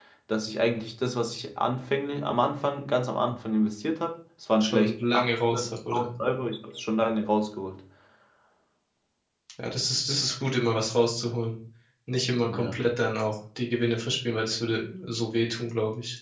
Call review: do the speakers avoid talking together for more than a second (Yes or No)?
No